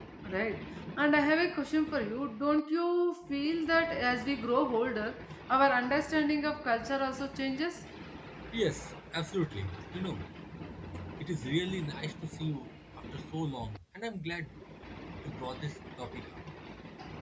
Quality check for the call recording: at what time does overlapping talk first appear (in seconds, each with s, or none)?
none